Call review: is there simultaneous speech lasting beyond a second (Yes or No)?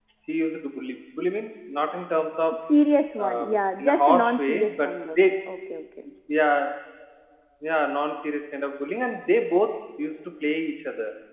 Yes